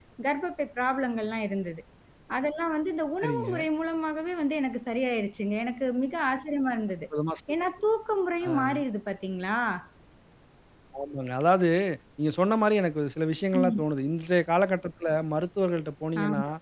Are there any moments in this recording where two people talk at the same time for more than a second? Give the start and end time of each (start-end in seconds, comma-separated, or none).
none